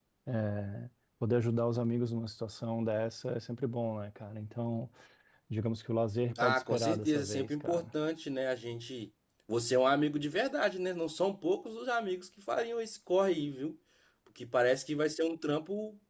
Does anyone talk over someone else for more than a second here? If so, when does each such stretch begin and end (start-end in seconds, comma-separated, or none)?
6.4-7.8